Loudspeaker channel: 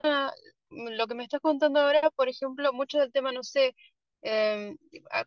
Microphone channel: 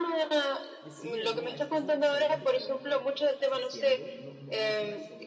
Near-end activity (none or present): present